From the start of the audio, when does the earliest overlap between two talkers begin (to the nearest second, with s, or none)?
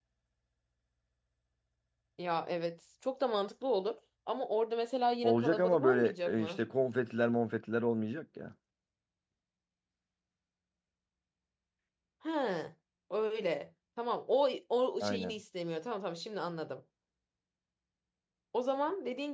5 s